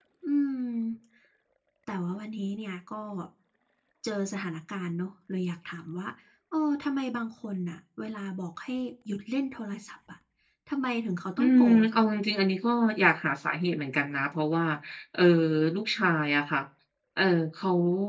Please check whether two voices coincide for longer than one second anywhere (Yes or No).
No